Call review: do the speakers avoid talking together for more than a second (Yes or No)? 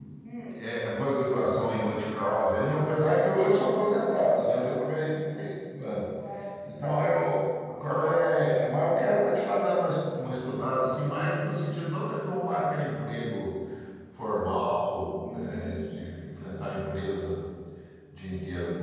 Yes